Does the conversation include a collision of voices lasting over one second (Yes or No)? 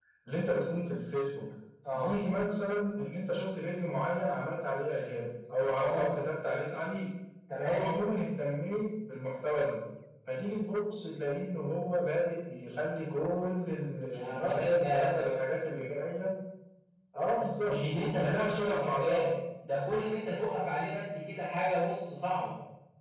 Yes